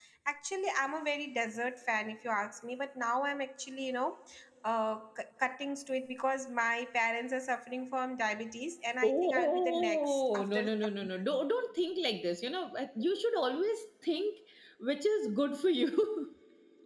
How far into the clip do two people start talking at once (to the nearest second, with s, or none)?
9 s